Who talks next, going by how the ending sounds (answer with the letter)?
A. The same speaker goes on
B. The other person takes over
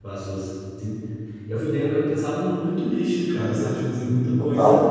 A